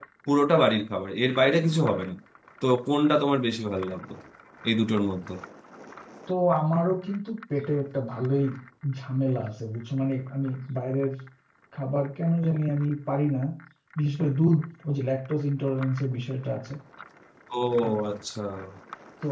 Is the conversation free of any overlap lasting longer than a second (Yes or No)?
Yes